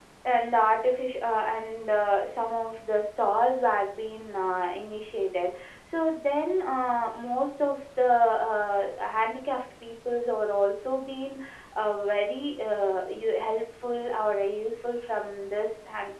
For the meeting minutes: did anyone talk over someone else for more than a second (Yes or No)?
No